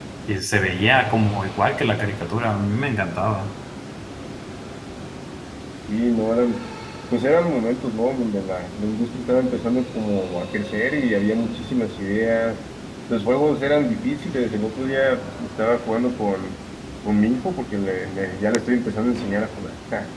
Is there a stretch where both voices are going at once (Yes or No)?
No